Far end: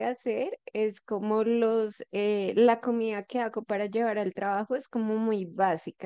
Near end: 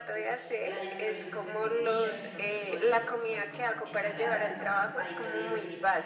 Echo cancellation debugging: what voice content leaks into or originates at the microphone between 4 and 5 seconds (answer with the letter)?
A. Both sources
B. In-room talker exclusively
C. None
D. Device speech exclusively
A